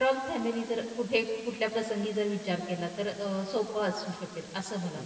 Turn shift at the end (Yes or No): Yes